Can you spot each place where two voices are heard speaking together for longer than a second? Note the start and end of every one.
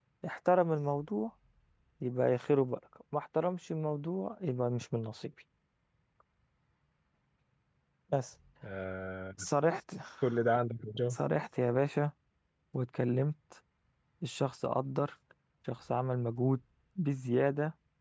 none

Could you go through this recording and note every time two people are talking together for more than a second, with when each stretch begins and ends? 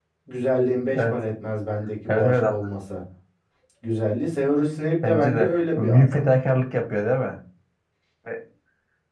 5.0-6.2

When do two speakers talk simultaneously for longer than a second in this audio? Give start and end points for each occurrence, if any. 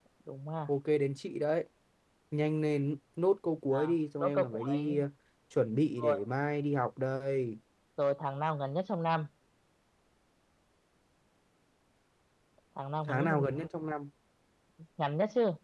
3.7-5.0

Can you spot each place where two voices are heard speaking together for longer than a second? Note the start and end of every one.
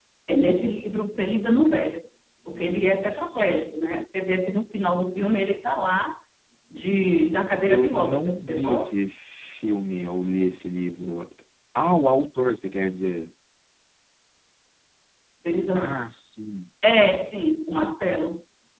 7.7-8.9

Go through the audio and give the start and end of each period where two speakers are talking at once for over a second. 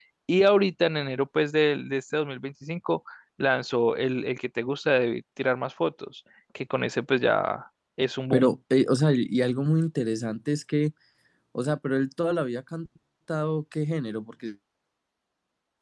none

